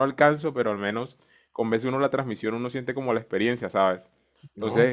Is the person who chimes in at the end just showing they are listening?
Yes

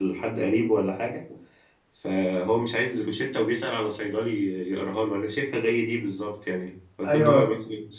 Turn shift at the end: No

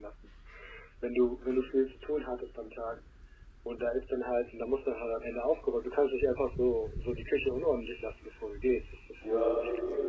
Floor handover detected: Yes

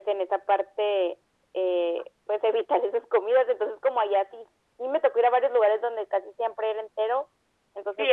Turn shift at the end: Yes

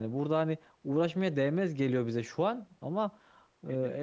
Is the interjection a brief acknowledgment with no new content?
Yes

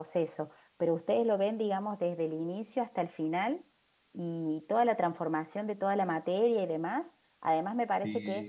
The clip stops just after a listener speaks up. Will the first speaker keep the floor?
Yes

